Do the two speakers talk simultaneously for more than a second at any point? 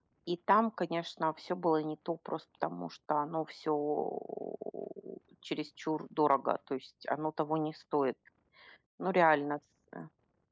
No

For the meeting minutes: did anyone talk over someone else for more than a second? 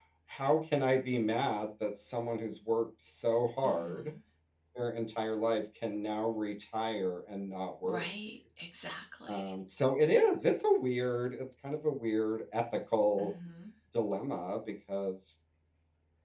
No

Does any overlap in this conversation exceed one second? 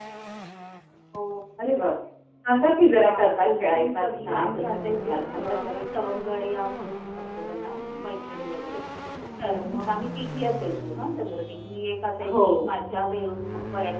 Yes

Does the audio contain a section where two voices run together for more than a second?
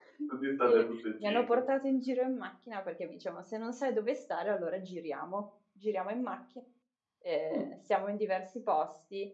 No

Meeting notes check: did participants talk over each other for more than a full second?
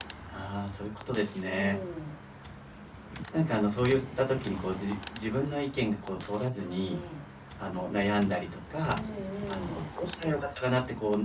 No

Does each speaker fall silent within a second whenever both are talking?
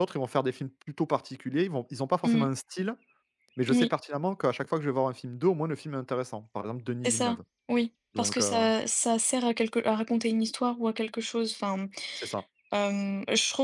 Yes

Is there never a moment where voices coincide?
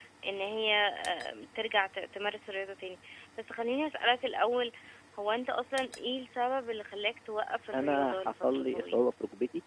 No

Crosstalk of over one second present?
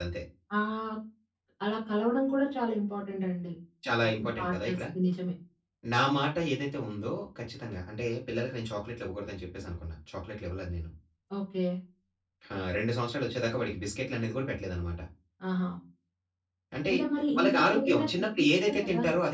Yes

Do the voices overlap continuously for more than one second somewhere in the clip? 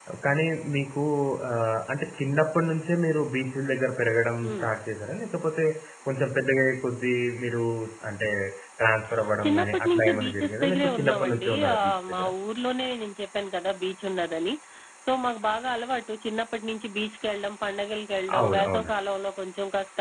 Yes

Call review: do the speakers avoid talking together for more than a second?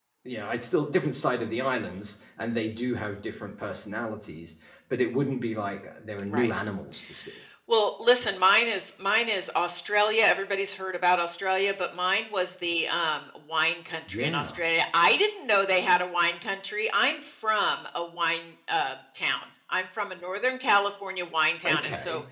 Yes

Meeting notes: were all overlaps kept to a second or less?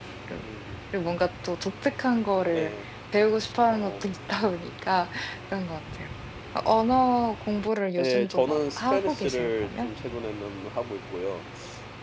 No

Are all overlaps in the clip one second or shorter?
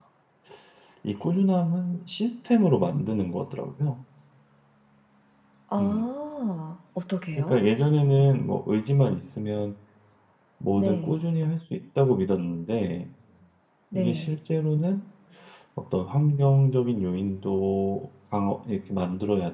Yes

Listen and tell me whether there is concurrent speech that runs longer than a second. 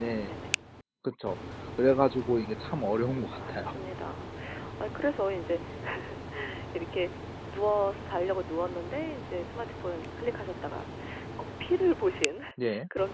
No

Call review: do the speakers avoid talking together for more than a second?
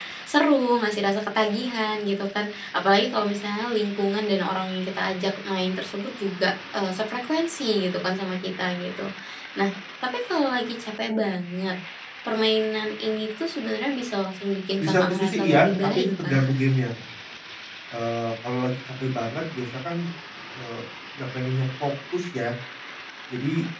No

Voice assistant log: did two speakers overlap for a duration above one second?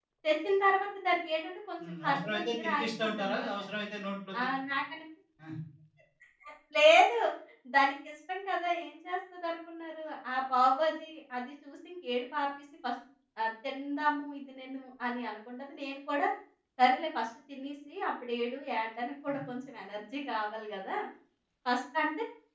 Yes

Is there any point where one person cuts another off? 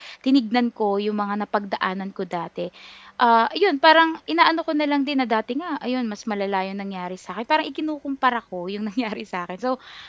No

